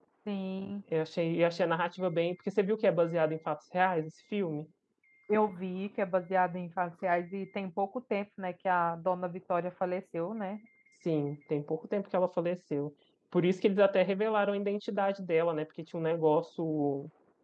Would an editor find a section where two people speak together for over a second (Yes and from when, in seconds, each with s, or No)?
No